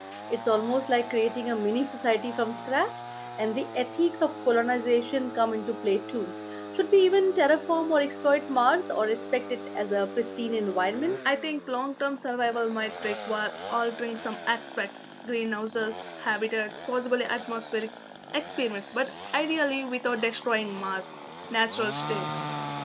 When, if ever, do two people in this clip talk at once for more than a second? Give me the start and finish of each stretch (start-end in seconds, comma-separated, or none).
none